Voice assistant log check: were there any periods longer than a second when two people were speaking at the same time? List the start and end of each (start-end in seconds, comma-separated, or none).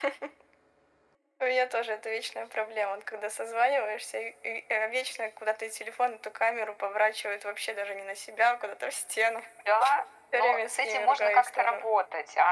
10.3-11.8